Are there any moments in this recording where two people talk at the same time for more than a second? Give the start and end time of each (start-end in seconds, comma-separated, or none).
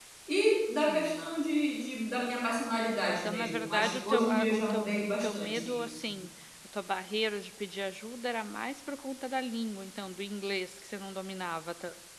3.2-6.1